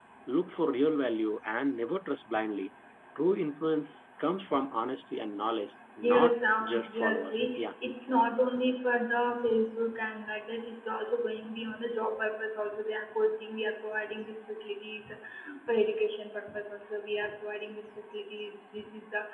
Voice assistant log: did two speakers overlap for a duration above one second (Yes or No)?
Yes